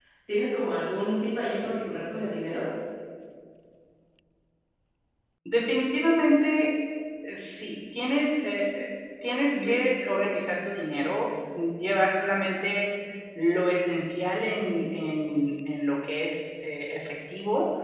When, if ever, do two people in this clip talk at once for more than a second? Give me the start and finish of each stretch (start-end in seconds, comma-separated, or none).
none